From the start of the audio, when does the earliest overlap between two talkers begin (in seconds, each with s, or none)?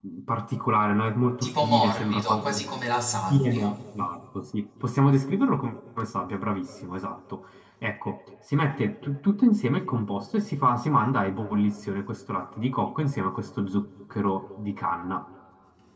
1.4 s